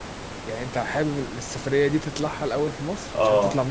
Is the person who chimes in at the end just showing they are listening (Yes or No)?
No